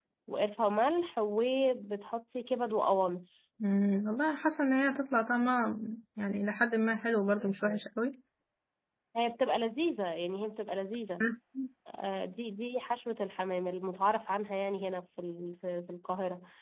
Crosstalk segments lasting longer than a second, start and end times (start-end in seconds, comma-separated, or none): none